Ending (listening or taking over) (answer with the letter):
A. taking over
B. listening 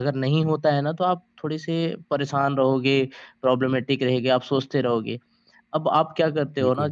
B